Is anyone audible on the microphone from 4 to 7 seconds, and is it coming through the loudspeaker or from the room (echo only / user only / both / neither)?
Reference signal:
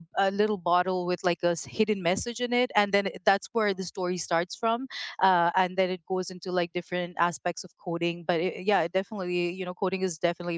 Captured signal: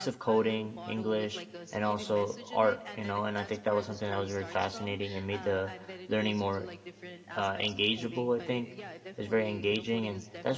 both